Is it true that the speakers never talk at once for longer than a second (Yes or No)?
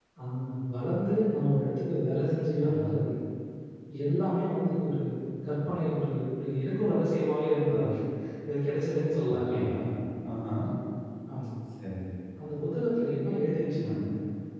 Yes